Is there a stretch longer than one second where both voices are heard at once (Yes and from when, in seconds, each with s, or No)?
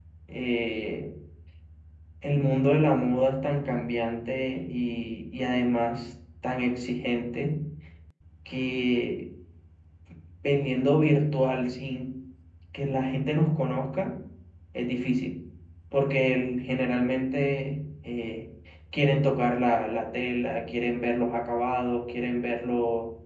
No